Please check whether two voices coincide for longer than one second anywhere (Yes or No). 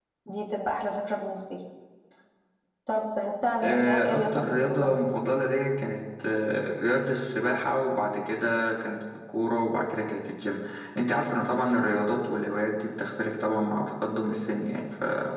Yes